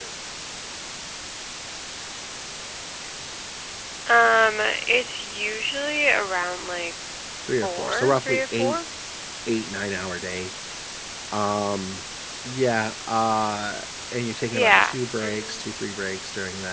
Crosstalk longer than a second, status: present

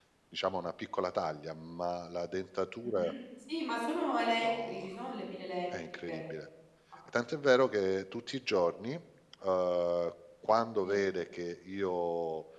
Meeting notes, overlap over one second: none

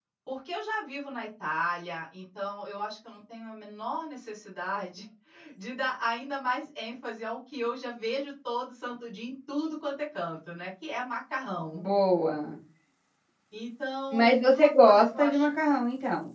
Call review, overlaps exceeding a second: present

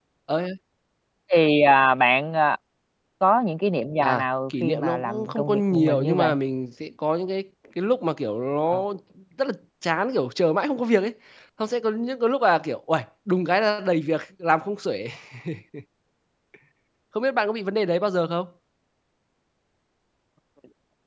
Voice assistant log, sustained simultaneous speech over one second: present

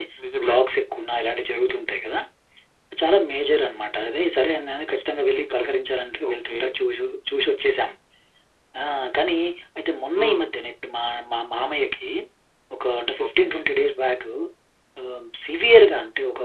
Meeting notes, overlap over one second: none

